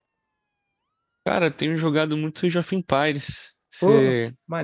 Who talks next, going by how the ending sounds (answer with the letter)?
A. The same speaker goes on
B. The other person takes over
B